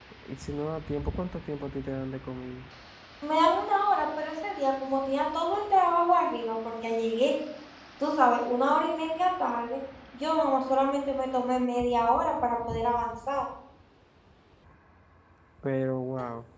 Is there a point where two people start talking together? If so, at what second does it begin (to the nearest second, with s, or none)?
none